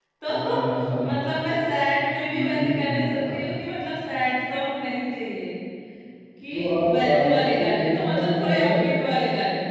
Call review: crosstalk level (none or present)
present